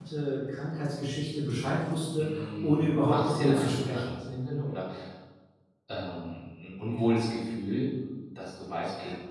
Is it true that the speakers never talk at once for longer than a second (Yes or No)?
No